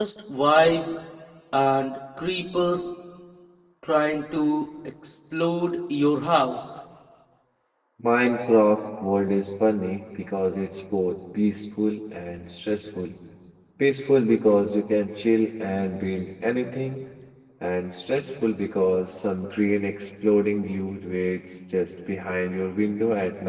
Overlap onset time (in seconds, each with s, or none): none